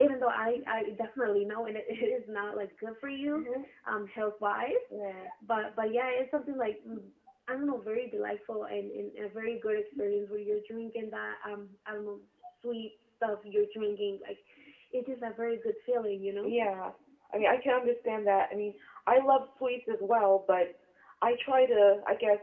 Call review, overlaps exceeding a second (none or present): none